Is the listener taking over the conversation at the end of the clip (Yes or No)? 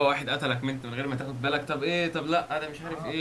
Yes